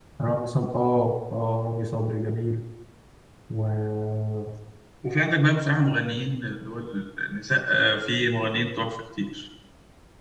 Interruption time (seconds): none

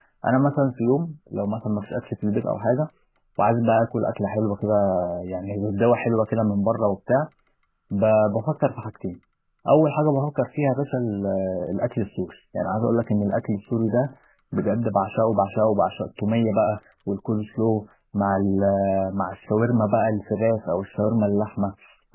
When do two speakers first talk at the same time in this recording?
none

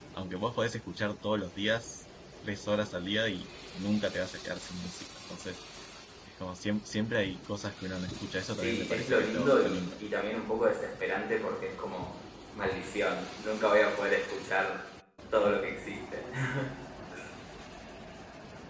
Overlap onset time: 8.6 s

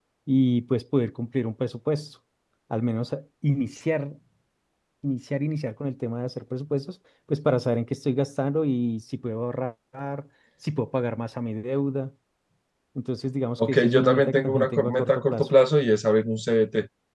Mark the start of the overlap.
13.6 s

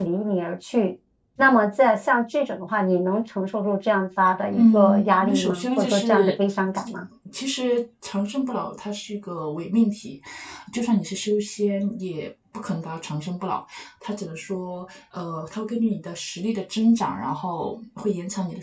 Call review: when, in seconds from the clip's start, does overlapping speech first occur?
4.5 s

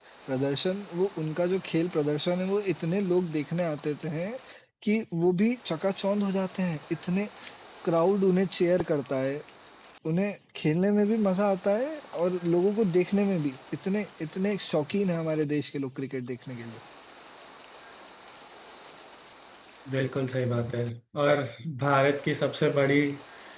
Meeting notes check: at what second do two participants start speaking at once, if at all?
none

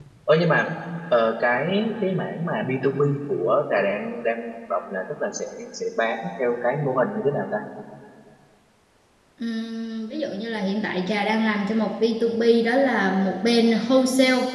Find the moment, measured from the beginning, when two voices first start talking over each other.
none

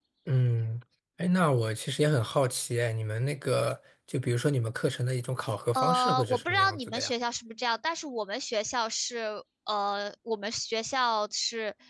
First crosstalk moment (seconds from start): 5.7 s

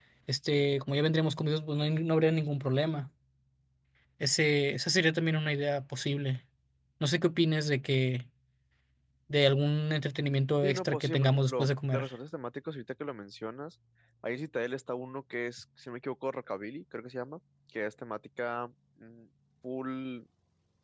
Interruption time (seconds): 10.6 s

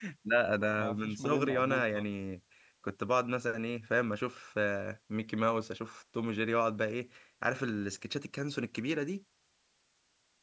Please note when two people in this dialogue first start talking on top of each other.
0.8 s

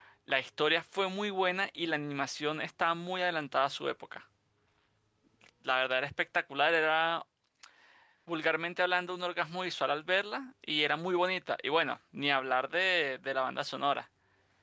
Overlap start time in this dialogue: none

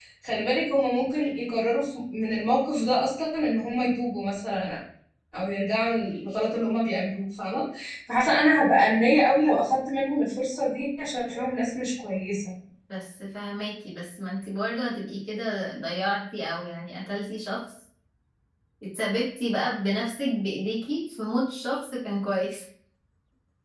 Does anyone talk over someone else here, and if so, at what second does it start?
none

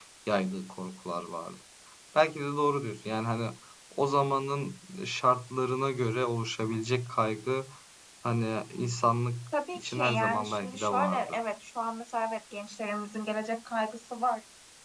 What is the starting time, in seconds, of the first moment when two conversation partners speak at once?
9.5 s

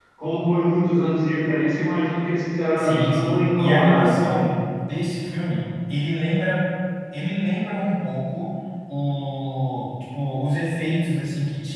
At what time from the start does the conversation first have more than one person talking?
2.7 s

